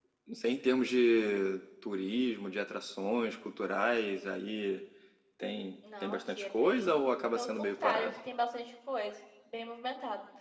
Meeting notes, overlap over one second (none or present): present